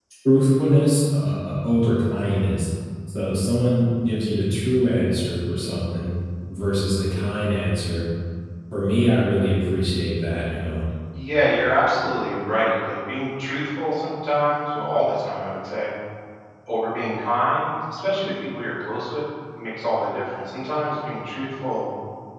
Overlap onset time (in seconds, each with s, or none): none